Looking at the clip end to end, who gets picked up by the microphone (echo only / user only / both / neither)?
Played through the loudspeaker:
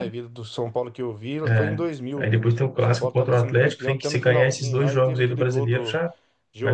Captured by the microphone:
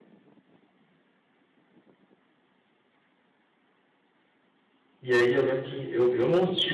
user only